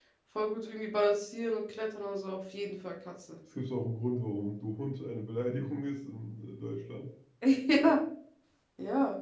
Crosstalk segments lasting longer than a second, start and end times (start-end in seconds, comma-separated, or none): none